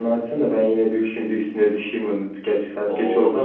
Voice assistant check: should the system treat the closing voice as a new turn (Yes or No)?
No